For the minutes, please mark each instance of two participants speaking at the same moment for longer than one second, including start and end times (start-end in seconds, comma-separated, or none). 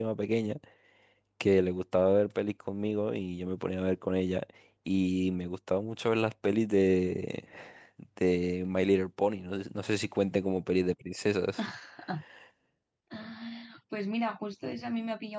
none